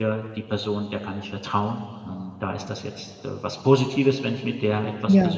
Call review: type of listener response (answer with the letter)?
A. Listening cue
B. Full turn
A